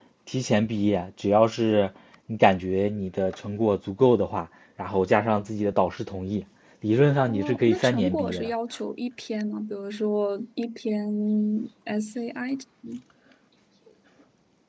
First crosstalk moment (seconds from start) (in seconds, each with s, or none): 7.3 s